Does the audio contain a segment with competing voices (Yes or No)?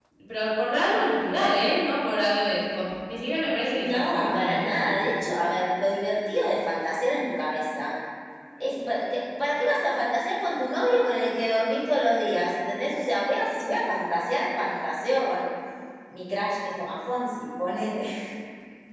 Yes